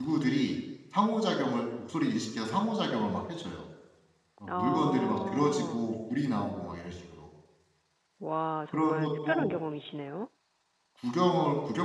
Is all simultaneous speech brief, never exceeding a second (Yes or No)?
No